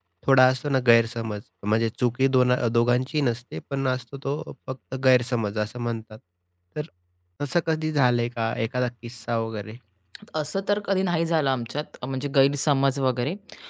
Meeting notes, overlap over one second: none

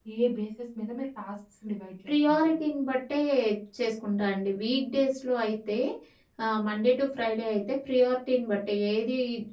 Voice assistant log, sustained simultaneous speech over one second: none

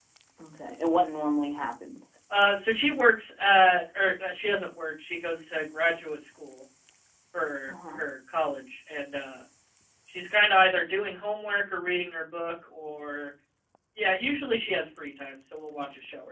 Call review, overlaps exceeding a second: none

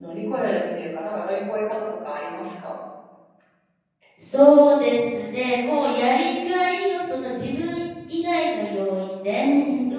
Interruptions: none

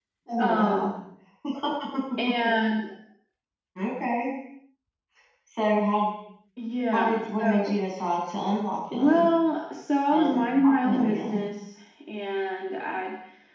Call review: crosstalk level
present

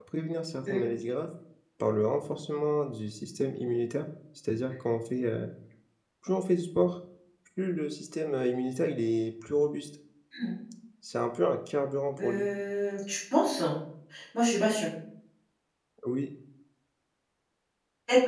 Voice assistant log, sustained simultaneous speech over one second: none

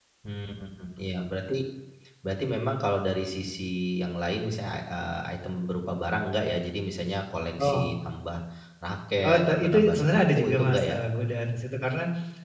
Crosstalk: present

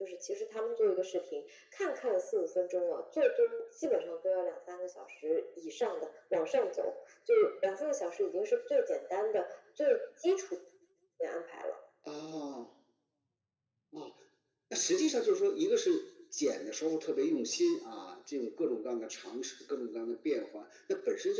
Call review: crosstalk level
none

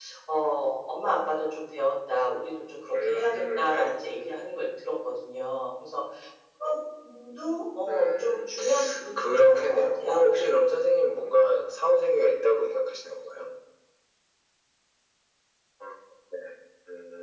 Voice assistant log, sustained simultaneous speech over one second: present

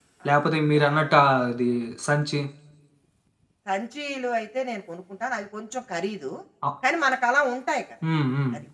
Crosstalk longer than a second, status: none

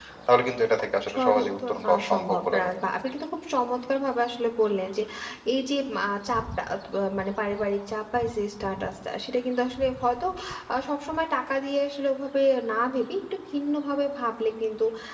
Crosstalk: present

